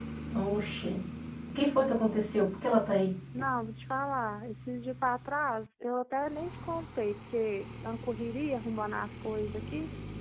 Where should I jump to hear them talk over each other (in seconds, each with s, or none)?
none